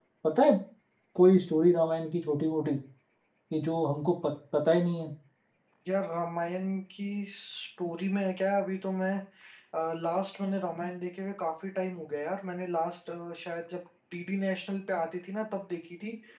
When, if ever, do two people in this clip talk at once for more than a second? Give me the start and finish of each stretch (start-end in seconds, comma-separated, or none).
none